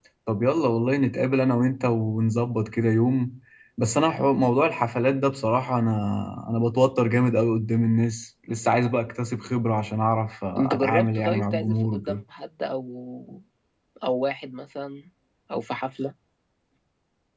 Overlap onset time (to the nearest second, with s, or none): 11 s